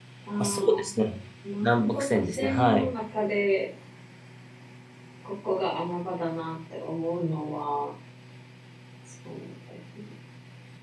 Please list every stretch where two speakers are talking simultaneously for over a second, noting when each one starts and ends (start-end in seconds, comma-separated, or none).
1.6-2.9